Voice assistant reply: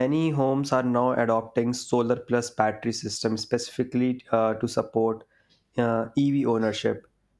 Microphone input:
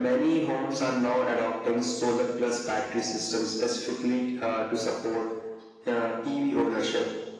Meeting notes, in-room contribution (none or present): none